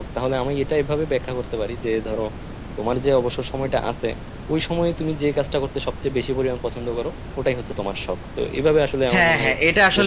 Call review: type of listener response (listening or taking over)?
taking over